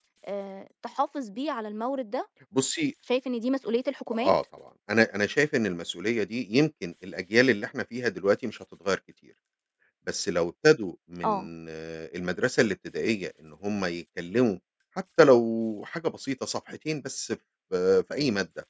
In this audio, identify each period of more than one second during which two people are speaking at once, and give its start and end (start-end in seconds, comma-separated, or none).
none